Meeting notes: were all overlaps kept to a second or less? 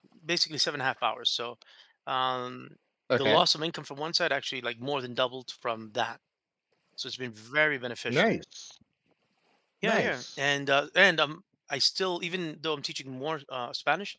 Yes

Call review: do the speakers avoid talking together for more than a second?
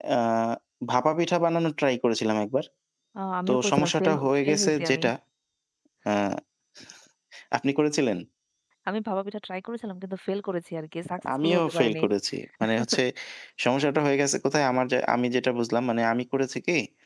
No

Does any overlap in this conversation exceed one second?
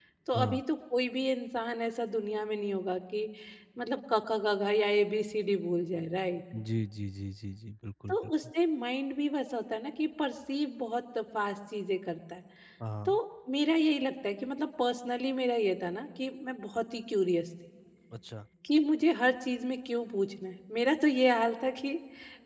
No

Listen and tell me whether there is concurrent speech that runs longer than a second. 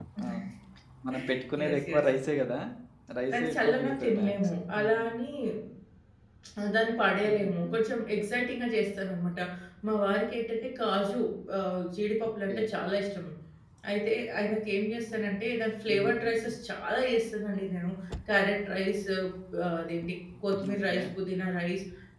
Yes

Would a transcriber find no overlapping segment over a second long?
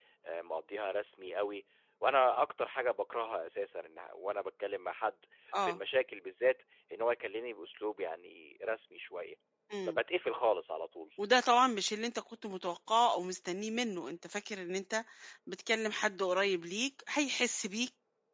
Yes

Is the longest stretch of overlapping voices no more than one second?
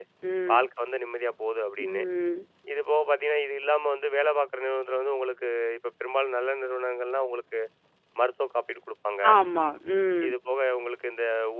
Yes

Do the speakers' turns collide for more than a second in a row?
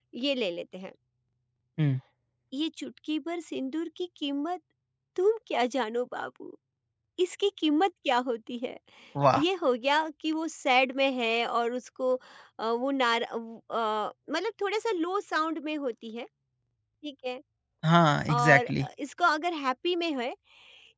No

